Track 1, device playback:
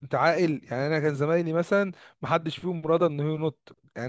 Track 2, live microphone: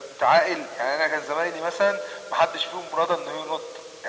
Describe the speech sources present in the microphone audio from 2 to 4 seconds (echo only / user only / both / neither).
echo only